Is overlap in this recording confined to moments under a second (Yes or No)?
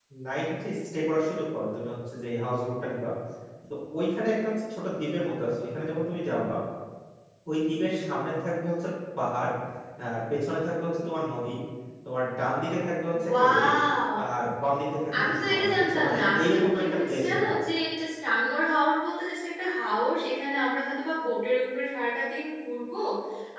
No